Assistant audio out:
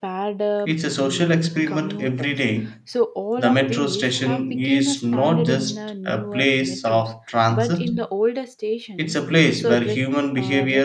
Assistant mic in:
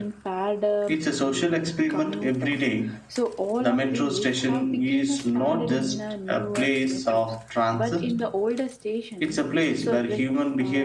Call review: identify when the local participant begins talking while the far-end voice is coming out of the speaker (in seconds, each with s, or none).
none